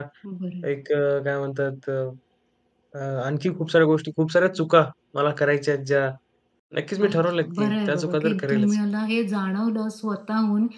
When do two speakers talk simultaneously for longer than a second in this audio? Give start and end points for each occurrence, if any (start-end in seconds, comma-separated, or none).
7.0-8.8